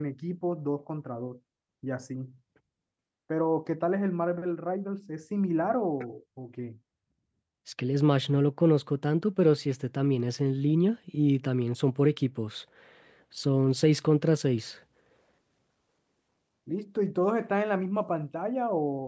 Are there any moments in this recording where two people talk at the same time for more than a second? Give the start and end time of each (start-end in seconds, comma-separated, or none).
none